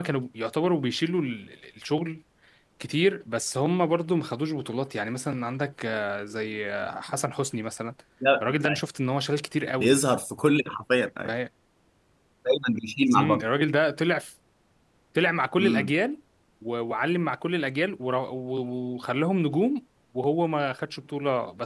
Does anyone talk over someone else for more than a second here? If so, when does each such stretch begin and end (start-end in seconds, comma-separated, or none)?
none